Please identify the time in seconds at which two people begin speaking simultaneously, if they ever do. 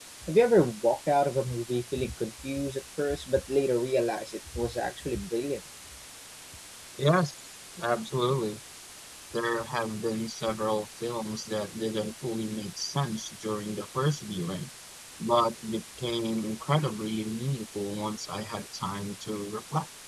none

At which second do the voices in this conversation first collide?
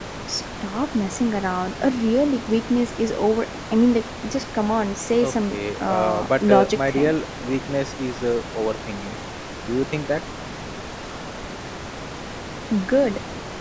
5.2 s

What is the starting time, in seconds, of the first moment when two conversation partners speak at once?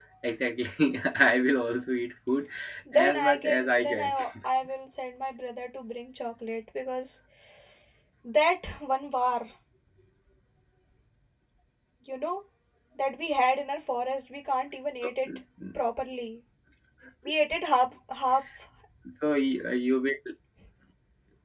2.9 s

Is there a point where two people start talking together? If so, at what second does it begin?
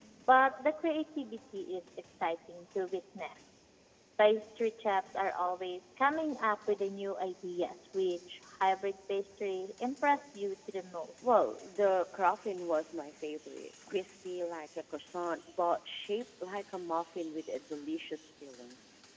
none

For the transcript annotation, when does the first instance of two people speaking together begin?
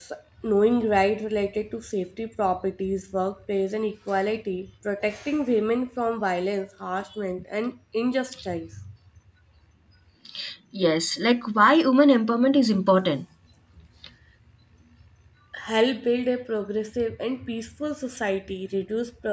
none

